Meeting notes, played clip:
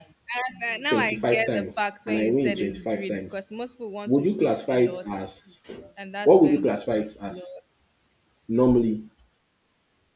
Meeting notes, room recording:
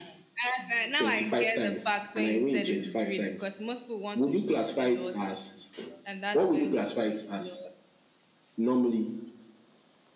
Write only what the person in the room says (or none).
none